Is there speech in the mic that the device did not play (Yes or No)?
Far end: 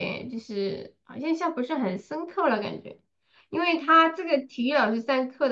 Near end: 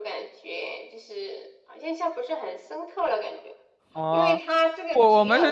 Yes